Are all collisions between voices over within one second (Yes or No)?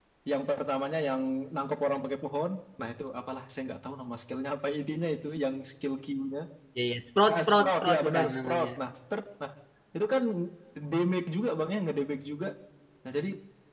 No